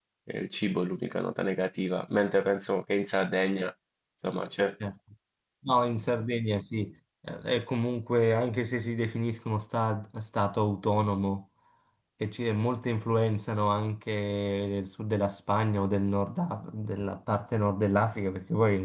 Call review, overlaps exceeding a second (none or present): none